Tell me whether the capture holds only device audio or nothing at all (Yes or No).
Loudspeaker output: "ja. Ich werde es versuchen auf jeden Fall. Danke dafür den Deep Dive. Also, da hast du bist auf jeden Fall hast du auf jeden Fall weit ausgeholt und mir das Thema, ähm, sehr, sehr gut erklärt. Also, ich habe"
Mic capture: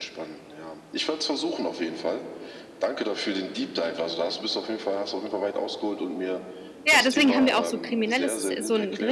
No